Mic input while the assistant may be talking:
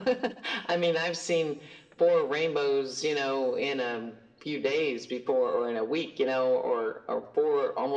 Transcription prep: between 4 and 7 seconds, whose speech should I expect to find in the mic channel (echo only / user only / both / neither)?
echo only